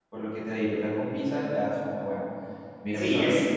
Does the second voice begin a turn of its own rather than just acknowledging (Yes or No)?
Yes